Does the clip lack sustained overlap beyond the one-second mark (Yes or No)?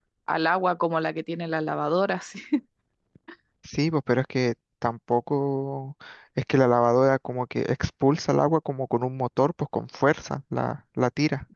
Yes